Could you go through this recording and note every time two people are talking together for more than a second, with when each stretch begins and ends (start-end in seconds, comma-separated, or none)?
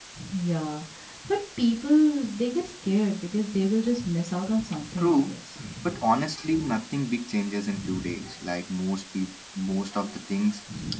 none